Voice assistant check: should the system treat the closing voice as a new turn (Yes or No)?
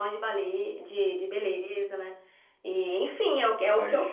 No